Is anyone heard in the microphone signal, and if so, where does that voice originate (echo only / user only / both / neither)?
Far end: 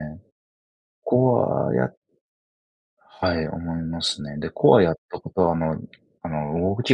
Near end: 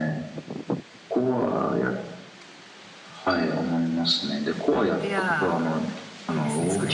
both